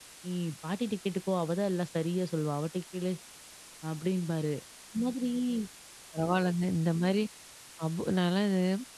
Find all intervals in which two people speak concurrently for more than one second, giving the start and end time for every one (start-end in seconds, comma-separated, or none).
none